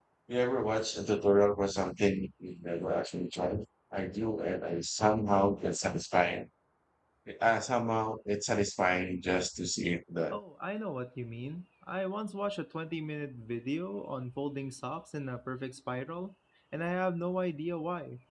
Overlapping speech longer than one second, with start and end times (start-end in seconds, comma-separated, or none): none